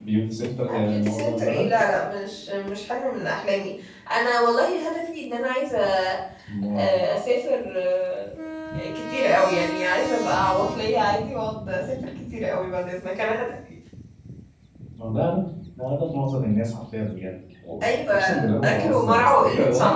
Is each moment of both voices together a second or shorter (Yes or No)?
No